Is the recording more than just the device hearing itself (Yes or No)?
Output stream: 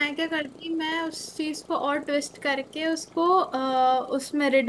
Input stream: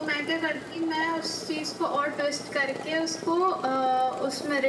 No